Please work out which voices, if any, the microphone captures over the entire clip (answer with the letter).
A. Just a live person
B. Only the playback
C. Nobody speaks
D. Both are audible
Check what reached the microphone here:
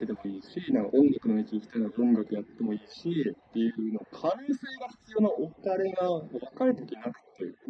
B